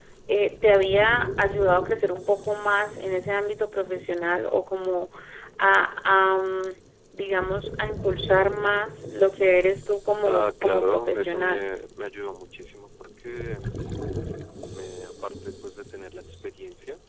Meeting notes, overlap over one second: present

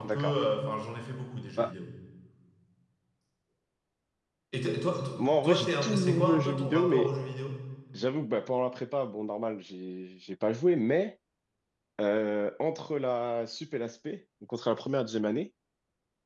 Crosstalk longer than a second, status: present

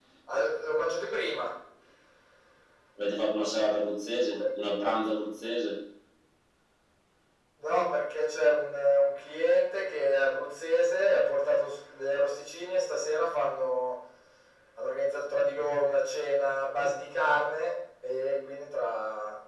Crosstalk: none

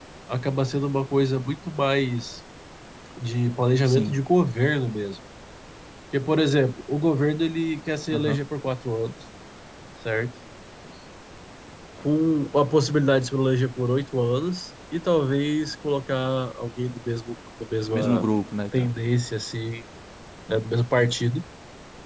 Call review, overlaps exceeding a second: none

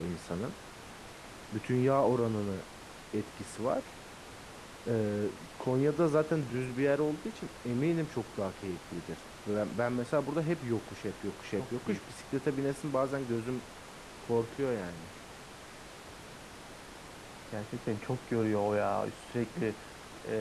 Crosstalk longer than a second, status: none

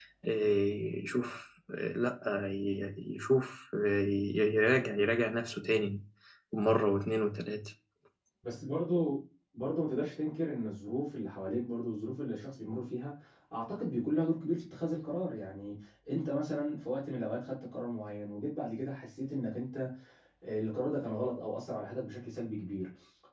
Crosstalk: none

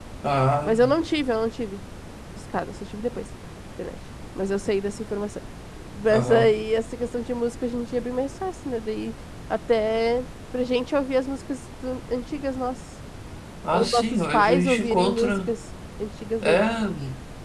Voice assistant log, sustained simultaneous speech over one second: present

